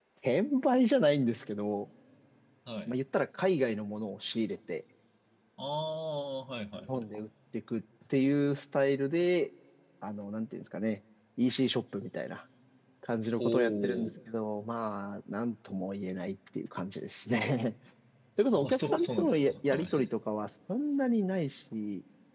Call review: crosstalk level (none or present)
present